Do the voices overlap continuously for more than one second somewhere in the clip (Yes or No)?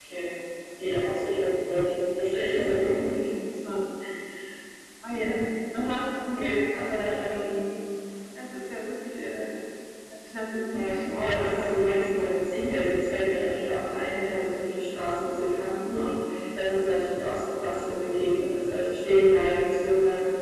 Yes